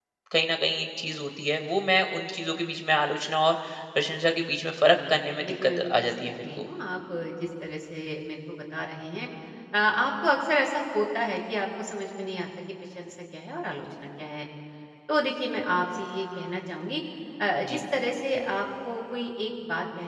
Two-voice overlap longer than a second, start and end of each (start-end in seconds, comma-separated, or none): 4.9-6.7